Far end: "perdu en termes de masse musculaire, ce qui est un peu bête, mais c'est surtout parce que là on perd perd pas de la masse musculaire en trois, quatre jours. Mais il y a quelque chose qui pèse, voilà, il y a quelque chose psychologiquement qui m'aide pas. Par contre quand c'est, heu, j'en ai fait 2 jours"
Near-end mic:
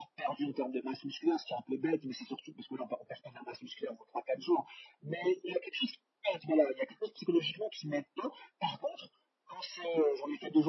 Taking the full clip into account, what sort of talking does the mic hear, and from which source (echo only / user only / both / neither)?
echo only